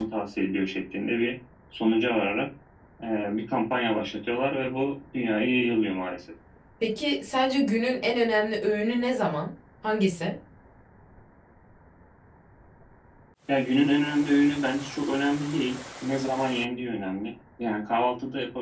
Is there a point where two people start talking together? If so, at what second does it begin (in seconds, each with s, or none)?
none